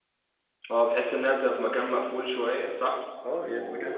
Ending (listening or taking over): taking over